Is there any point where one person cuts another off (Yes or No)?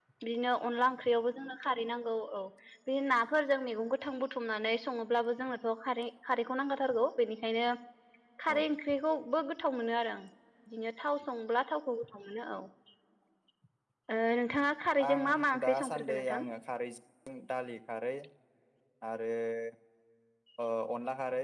Yes